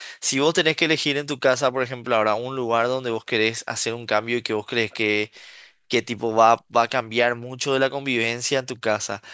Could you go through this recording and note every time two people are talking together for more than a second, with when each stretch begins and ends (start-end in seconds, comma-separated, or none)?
none